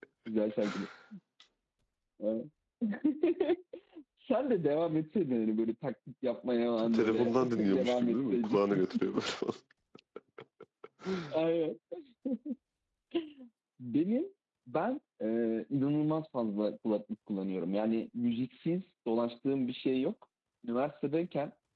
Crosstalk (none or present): present